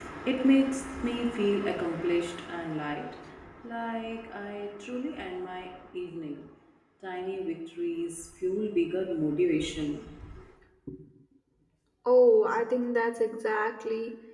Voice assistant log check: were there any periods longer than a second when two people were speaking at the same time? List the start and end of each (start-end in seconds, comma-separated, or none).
none